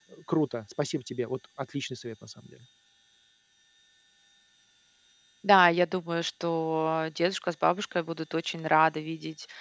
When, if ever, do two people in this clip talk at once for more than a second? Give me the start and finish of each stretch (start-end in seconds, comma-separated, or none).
none